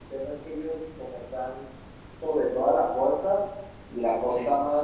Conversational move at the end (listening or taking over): listening